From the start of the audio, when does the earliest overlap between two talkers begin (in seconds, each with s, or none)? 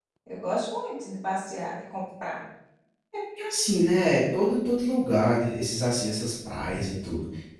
none